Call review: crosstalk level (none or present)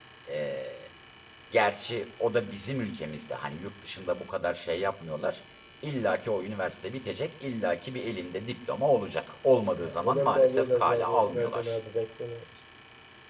present